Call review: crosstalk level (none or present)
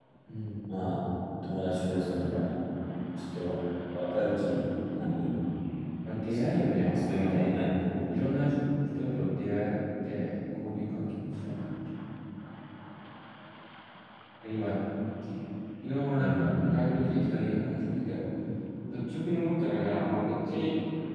present